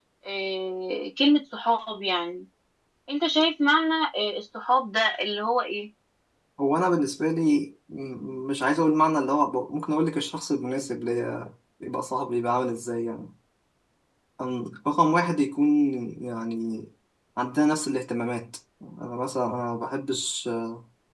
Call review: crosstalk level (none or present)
none